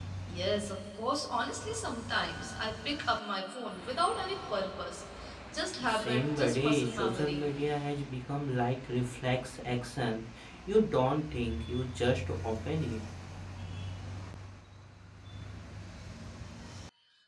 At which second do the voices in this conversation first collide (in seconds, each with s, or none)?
5.8 s